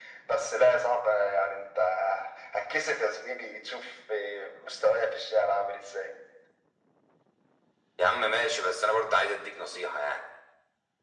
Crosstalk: none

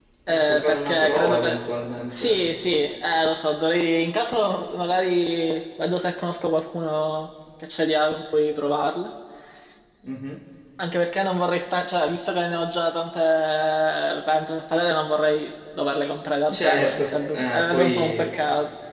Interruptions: present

